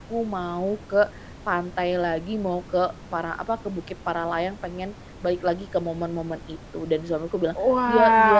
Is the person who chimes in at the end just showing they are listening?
No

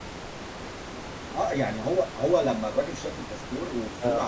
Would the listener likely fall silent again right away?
Yes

